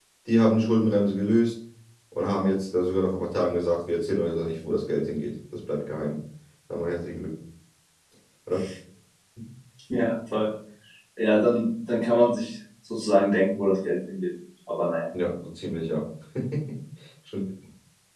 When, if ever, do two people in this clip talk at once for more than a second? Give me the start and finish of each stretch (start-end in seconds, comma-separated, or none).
none